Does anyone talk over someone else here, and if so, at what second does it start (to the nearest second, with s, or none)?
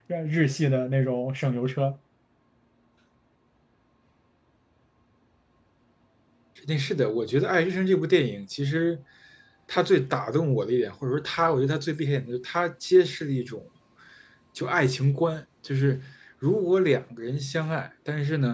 none